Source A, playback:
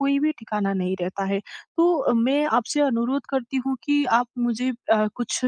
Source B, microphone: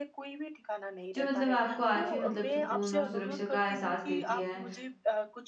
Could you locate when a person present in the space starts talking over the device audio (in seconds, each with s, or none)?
1.1 s